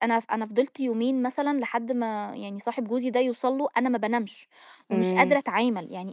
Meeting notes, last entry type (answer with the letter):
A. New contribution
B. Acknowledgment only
B